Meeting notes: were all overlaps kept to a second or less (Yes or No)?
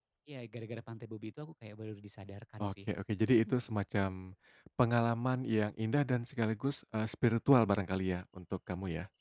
Yes